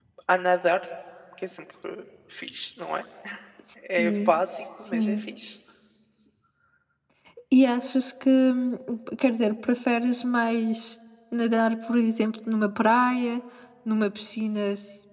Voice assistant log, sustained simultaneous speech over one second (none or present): present